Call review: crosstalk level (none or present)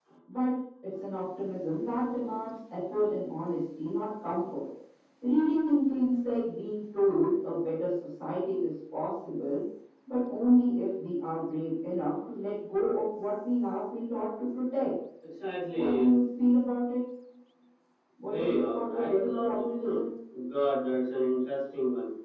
present